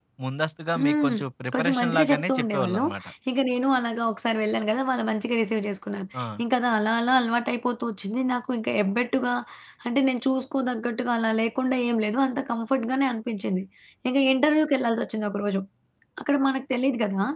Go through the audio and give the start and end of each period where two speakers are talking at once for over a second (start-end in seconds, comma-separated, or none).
1.5-2.8